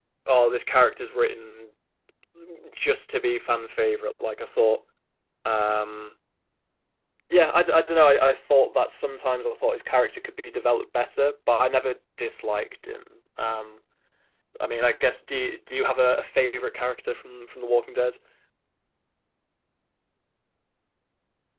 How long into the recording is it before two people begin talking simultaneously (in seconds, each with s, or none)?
none